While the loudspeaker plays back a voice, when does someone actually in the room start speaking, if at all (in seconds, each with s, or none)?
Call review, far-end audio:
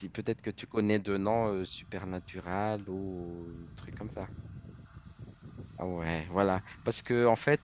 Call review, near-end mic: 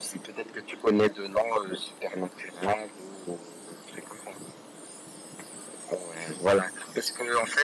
none